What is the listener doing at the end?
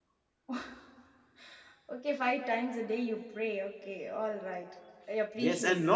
taking over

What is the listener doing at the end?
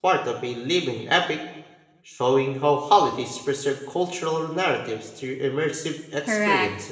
taking over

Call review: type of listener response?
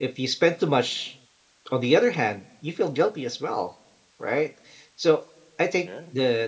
listening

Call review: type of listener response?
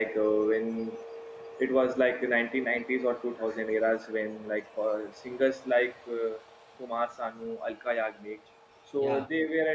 listening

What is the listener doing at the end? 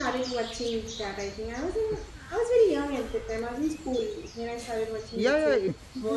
taking over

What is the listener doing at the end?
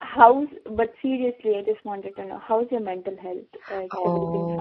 taking over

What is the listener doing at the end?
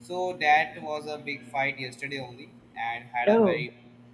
listening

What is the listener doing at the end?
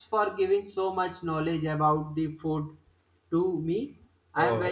listening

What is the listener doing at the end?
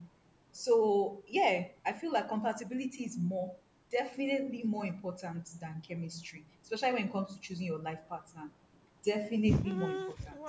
taking over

